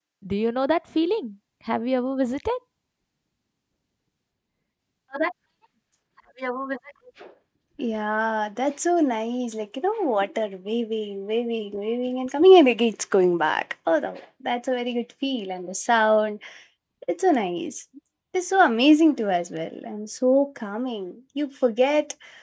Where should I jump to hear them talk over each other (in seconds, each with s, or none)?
none